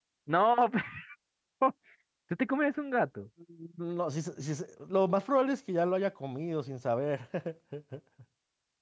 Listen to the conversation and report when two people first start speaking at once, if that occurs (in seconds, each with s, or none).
none